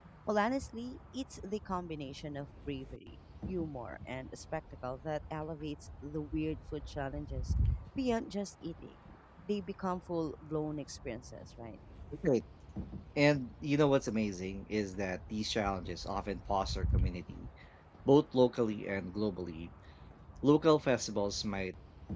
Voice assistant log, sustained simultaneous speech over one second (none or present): none